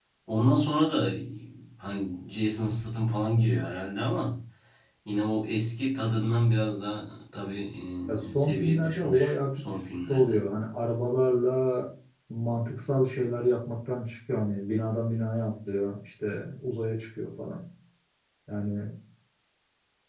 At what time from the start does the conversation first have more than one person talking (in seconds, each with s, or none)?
8.3 s